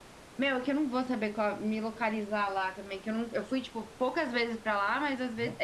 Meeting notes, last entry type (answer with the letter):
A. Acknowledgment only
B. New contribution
A